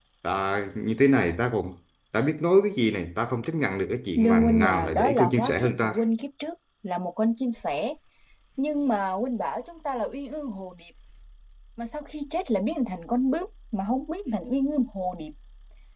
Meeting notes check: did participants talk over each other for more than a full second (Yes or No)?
Yes